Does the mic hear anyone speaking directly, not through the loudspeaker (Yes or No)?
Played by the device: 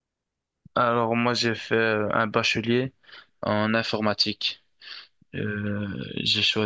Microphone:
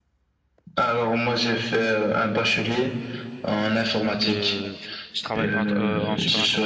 Yes